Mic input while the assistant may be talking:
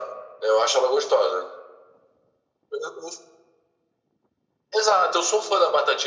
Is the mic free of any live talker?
Yes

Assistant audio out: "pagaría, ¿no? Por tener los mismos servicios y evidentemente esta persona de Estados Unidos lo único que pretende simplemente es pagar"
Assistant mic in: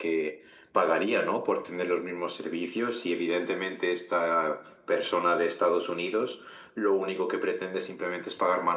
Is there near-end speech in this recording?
No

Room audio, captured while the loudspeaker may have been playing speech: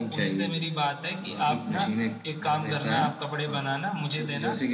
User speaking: Yes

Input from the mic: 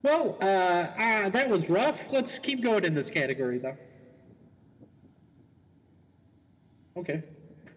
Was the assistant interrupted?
Yes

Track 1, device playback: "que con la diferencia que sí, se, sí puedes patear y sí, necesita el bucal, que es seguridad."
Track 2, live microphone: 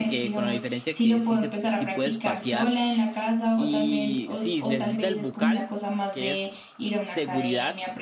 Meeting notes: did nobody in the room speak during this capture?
No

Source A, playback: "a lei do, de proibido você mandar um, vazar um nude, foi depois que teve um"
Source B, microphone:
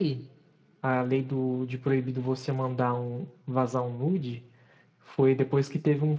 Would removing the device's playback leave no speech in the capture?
Yes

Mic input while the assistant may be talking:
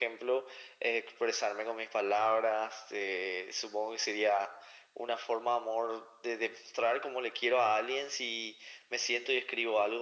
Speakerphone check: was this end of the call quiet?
Yes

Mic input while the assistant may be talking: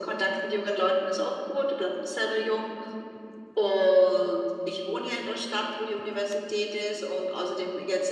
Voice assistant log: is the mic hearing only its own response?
Yes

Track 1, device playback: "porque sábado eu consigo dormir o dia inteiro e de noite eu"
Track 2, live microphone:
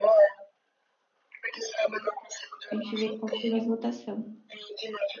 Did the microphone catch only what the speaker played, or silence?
No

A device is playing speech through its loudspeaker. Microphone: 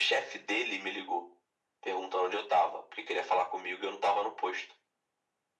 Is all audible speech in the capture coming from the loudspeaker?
Yes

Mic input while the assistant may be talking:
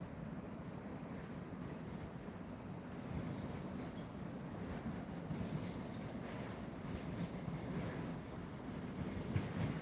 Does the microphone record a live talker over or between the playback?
No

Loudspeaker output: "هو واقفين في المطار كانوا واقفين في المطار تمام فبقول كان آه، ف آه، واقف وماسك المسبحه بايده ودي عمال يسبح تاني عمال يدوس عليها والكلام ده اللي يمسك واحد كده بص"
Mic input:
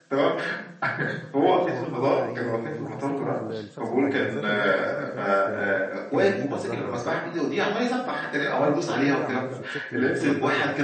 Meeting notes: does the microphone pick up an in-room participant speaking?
Yes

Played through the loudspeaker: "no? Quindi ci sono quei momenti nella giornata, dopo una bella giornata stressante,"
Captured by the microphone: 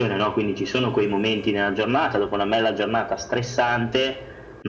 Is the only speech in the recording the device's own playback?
Yes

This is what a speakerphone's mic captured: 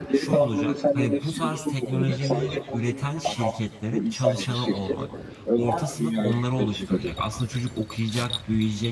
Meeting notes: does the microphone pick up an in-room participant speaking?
Yes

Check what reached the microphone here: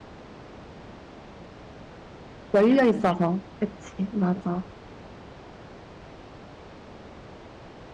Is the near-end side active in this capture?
Yes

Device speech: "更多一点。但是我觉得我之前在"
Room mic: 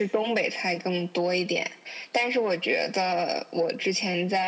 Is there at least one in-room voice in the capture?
No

